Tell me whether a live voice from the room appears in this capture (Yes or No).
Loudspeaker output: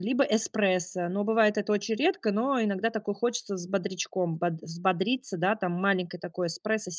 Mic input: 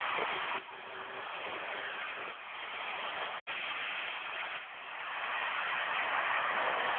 No